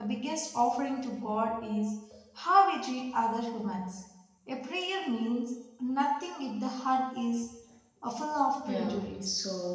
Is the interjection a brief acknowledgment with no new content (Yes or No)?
No